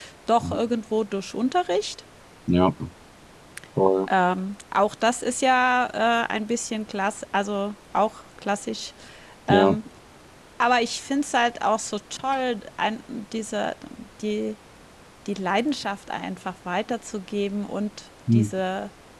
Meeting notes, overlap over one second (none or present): none